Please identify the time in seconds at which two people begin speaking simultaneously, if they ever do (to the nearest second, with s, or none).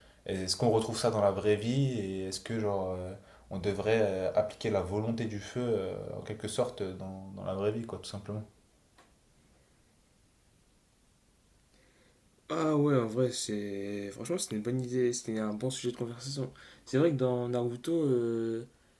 none